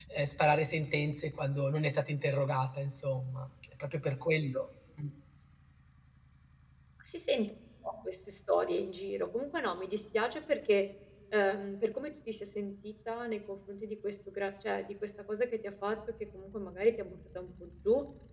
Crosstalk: none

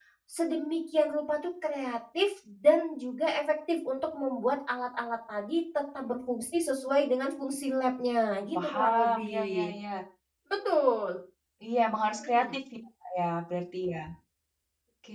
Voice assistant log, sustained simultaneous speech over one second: present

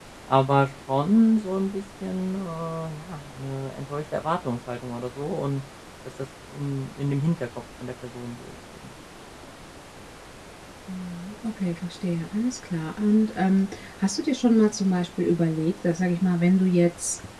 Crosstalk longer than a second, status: none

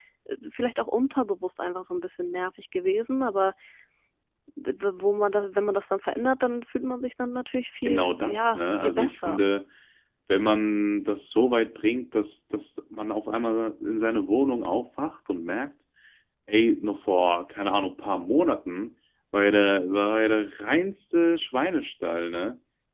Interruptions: present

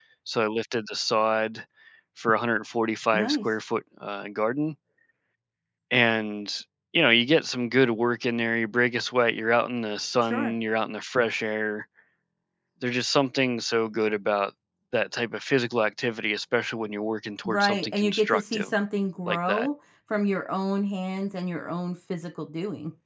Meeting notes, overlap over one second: present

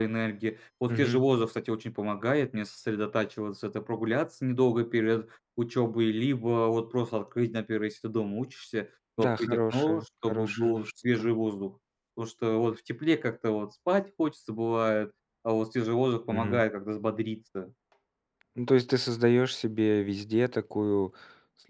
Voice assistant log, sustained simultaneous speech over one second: present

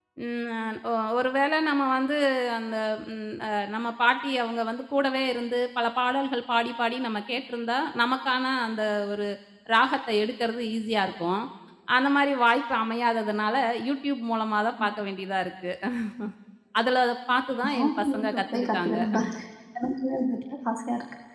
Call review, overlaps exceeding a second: present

